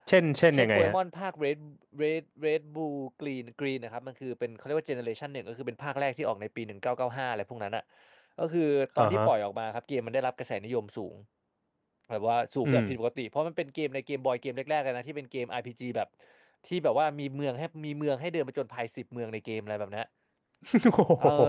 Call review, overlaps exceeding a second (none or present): none